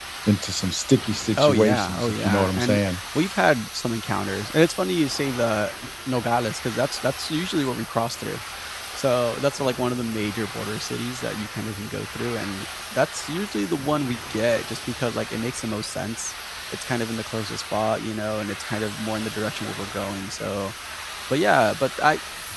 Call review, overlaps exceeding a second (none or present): present